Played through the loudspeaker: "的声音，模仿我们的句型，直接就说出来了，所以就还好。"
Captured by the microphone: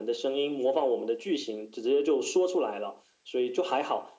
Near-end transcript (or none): none